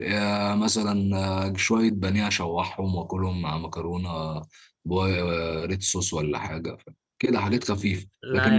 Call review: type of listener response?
listening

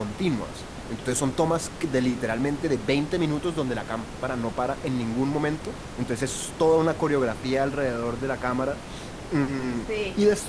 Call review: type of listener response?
listening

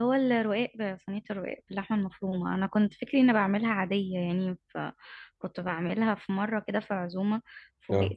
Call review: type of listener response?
listening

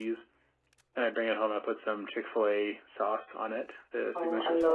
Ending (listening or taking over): taking over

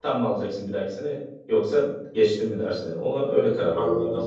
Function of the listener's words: taking over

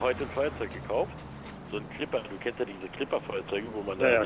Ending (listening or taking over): listening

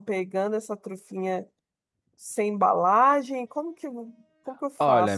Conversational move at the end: taking over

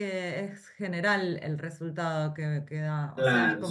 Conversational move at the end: taking over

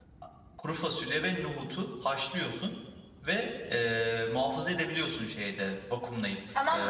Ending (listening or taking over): taking over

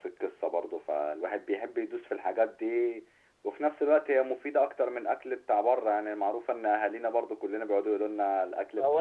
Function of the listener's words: taking over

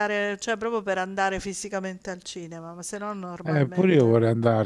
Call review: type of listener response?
taking over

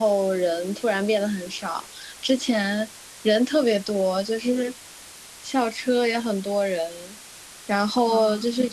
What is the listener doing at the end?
listening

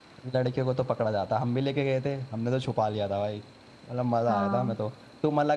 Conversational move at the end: listening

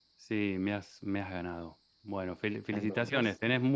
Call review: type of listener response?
listening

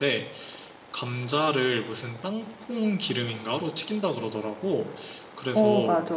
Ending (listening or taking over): listening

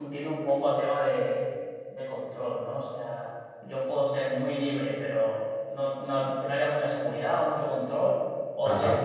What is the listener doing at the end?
listening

